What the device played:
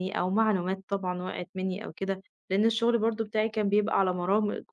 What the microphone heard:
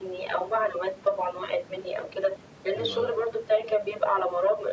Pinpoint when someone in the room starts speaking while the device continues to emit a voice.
2.8 s

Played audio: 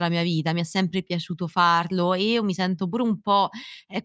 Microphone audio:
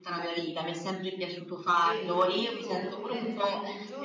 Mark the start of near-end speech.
1.8 s

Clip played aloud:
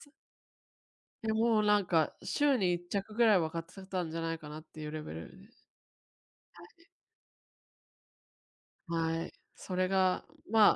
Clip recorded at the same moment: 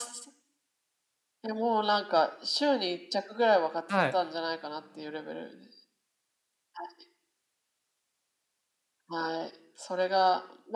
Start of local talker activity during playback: 3.9 s

